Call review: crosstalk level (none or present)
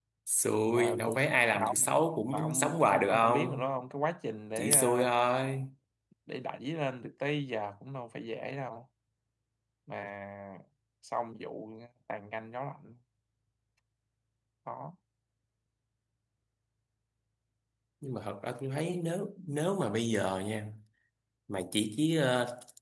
present